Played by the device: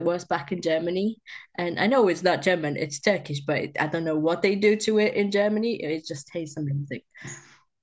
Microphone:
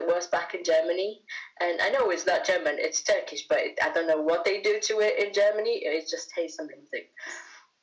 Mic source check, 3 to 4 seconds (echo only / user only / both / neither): echo only